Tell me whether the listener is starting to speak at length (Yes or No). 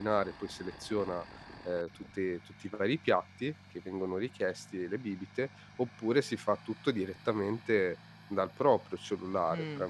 No